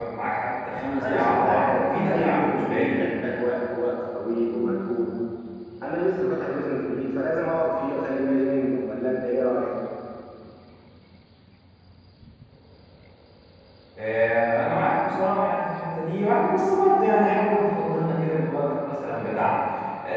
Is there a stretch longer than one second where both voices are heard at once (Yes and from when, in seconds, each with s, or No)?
Yes, from 1.0 s